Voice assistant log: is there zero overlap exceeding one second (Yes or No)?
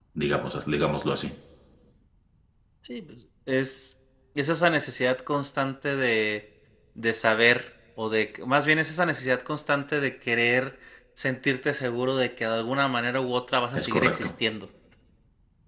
Yes